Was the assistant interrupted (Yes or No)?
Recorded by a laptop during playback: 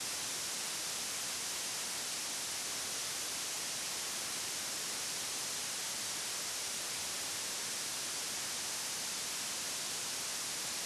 No